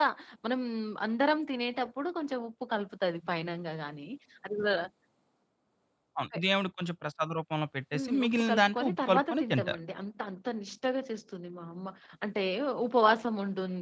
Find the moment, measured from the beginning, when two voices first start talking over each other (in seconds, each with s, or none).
7.9 s